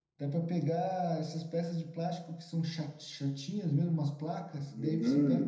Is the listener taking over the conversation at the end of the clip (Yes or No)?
No